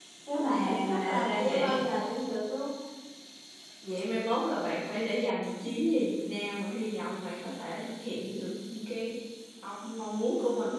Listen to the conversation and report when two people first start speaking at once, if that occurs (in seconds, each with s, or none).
0.5 s